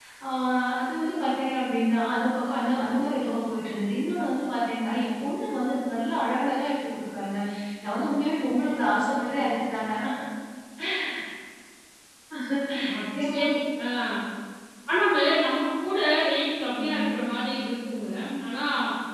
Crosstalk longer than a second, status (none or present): none